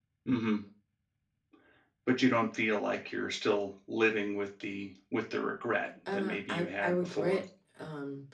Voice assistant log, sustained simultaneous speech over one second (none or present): present